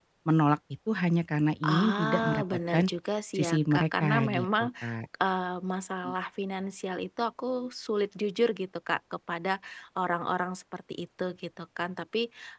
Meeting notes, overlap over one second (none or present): present